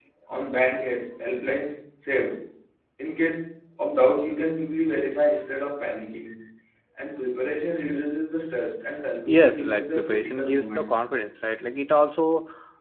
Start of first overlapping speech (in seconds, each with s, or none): 9.3 s